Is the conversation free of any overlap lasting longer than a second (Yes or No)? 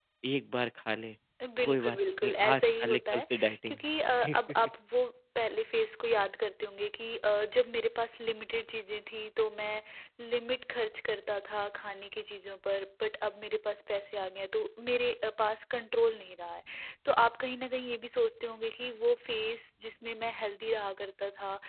No